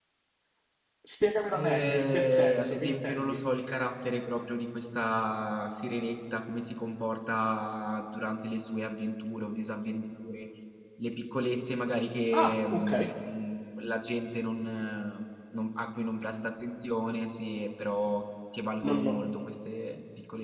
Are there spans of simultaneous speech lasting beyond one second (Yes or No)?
Yes